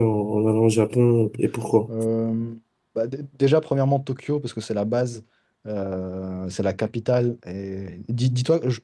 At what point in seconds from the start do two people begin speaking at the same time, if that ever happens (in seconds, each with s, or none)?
none